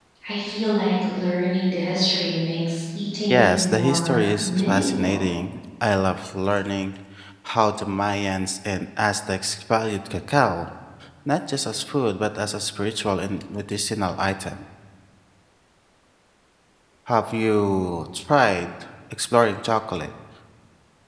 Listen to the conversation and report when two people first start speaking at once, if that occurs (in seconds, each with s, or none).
3.2 s